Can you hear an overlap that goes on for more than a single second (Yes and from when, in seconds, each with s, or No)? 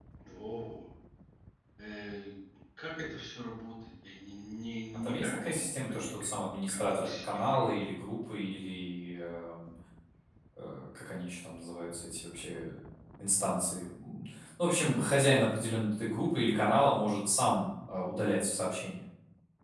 Yes, from 4.9 s